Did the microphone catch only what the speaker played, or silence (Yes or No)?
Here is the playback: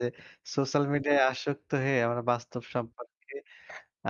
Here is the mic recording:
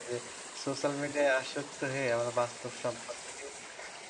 Yes